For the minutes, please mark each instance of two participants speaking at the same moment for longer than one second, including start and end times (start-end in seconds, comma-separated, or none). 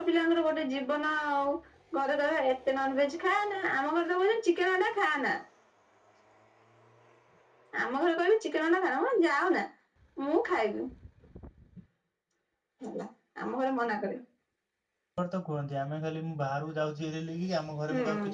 none